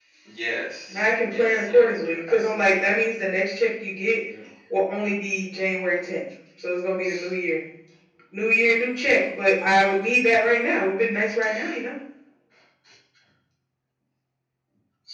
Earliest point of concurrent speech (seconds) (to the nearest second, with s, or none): 1 s